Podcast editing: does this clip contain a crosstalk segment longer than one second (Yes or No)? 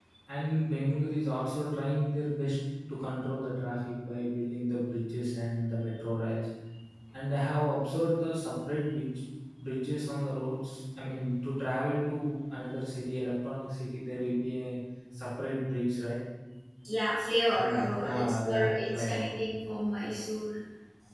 Yes